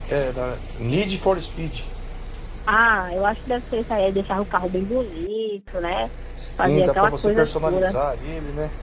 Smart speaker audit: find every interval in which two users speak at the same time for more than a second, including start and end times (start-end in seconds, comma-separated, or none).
6.6-8.0